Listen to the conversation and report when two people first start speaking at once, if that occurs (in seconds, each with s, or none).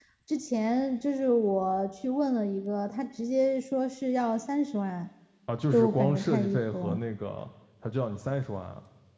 5.7 s